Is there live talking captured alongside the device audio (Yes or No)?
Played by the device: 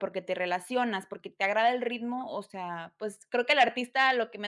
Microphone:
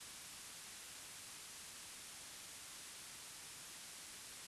No